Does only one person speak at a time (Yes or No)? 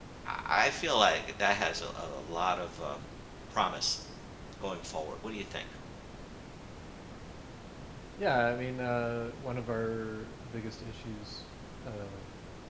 Yes